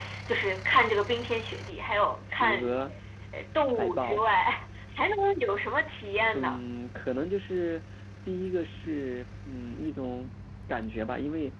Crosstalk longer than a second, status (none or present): none